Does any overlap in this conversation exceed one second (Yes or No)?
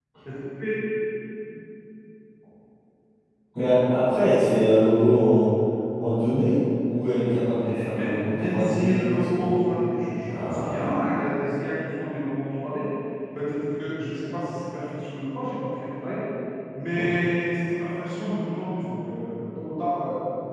Yes